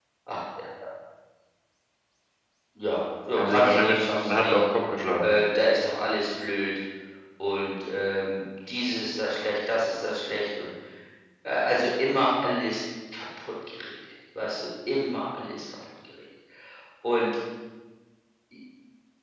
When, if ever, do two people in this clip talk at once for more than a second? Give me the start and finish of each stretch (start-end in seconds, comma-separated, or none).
3.4-4.6